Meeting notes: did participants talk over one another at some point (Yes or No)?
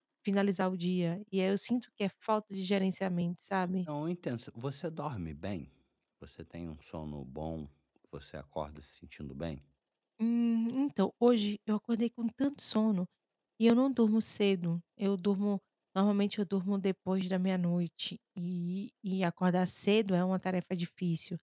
No